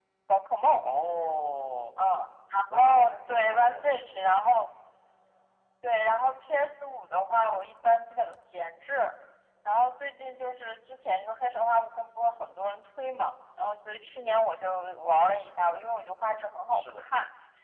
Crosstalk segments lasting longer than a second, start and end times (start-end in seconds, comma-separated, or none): 2.7-4.0